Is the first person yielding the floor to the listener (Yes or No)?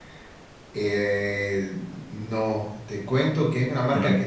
No